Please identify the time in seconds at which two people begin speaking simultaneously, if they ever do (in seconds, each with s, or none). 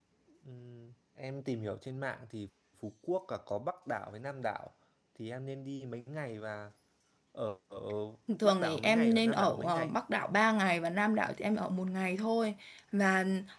8.4 s